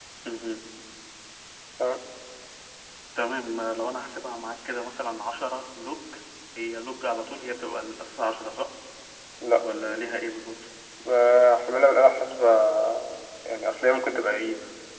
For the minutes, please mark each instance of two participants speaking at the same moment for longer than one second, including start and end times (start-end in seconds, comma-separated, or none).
none